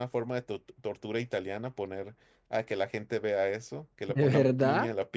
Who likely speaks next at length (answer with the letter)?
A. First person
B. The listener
A